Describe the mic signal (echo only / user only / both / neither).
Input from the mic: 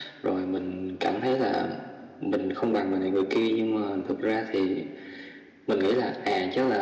echo only